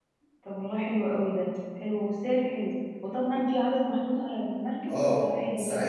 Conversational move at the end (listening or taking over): taking over